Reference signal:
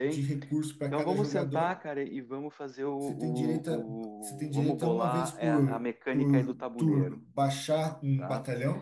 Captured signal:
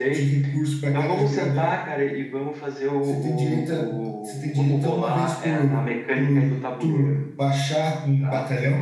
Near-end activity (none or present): none